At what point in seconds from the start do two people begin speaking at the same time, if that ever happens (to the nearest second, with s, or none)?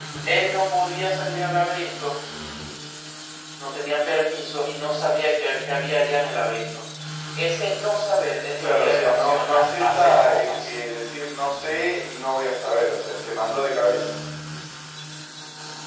9 s